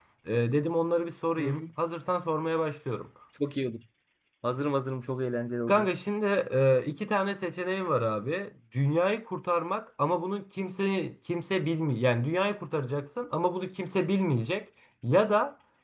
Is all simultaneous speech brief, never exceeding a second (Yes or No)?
Yes